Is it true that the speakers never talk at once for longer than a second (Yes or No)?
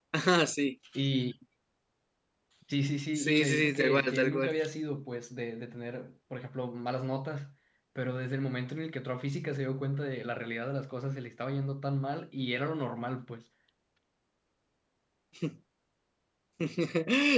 No